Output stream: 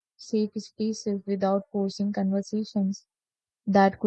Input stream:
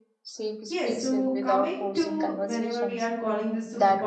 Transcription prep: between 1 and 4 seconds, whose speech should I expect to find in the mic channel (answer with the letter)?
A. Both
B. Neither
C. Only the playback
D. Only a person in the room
A